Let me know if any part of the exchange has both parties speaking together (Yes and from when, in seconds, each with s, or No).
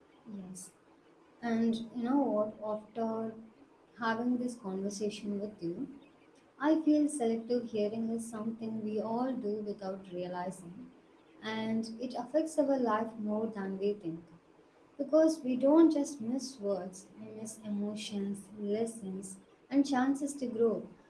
No